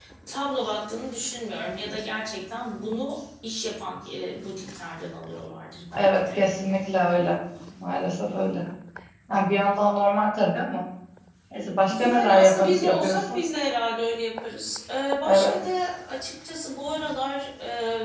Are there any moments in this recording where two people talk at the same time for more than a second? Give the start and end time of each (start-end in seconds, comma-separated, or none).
11.9-13.4